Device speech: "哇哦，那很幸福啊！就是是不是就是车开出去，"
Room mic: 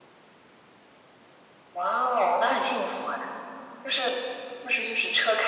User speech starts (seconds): none

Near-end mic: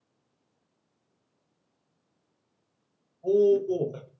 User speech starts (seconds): 3.2 s

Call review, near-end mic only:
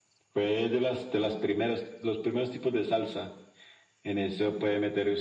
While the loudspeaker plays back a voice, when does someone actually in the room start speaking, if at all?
none

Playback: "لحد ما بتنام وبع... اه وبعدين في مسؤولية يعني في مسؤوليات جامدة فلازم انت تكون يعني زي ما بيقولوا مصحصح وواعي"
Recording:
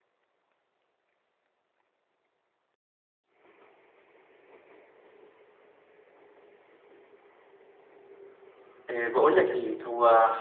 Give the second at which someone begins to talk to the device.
8.9 s

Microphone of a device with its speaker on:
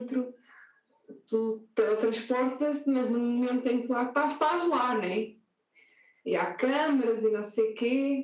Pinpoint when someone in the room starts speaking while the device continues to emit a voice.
none

